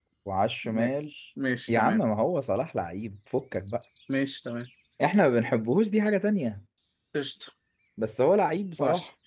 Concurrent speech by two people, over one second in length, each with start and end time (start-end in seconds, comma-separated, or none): none